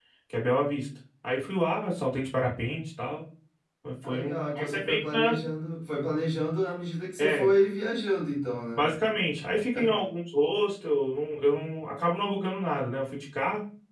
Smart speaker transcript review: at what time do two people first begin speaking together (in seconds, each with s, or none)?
4.0 s